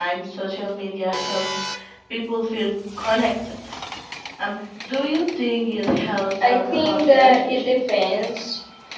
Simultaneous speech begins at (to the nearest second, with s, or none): 6 s